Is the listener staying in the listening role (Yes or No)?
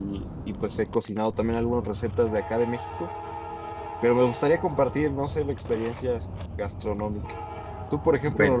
Yes